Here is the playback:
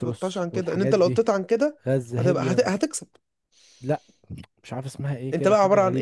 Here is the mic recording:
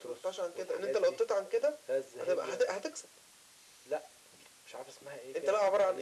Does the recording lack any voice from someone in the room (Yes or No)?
Yes